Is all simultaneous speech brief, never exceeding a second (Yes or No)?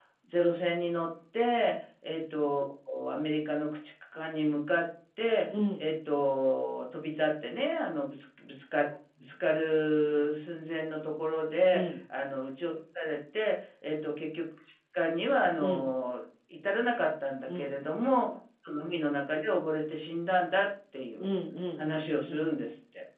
Yes